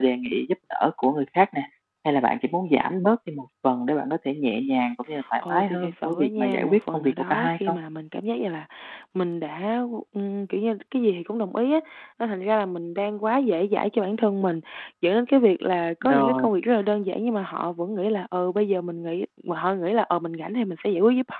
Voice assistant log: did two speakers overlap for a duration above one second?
Yes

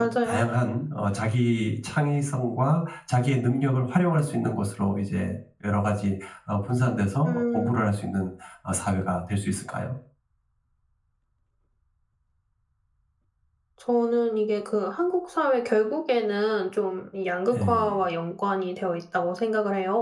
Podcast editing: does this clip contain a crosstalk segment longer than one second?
No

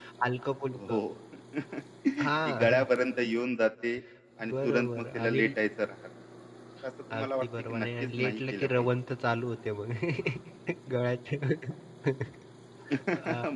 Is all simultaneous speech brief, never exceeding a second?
No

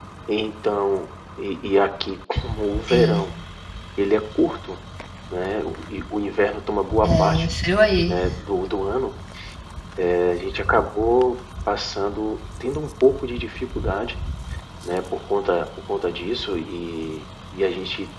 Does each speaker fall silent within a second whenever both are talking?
Yes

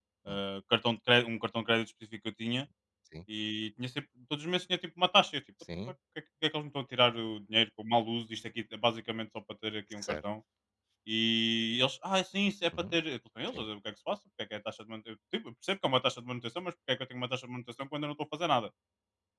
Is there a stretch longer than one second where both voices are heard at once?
No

